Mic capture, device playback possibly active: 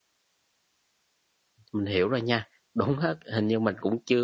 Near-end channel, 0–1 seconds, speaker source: neither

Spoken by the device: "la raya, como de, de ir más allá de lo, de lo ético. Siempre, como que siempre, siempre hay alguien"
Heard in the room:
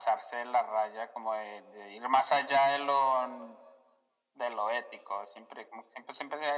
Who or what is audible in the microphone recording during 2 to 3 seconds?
echo only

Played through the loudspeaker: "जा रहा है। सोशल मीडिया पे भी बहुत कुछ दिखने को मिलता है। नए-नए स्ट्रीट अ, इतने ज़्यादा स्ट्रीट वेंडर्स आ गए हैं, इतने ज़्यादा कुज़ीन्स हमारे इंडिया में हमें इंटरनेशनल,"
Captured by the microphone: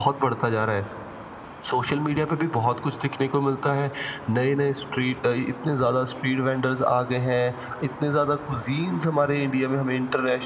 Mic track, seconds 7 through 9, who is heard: echo only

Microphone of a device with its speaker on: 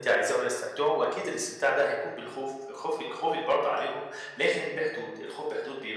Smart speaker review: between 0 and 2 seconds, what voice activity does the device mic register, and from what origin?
echo only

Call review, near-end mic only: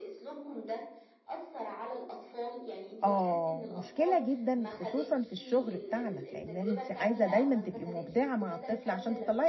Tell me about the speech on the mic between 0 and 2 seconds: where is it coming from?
echo only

